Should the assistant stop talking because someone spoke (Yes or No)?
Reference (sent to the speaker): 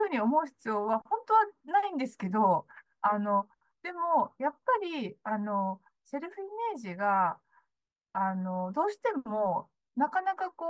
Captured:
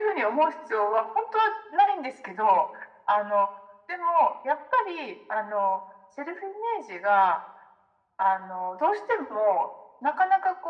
No